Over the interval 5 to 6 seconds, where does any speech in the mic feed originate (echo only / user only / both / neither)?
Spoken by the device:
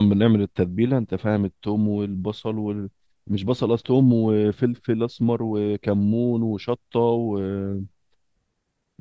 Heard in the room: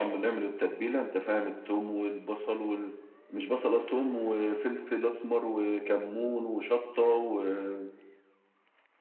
echo only